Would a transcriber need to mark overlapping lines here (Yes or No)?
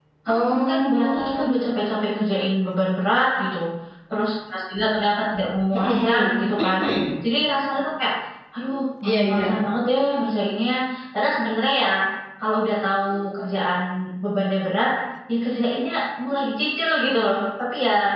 Yes